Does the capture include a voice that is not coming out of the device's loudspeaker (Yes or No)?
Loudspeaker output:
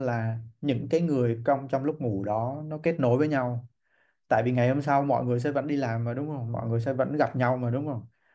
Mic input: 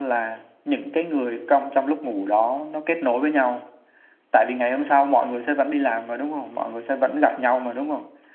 No